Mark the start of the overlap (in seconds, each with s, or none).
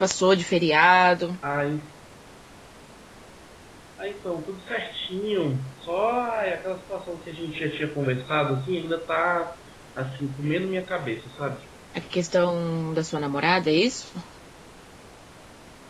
none